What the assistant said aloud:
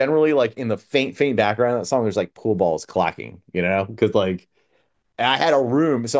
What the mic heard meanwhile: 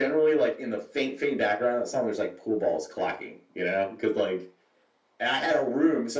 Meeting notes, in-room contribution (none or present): none